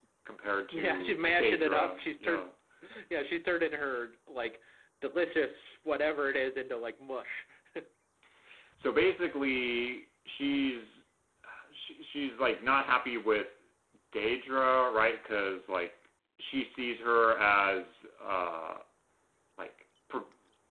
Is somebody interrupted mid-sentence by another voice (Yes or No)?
Yes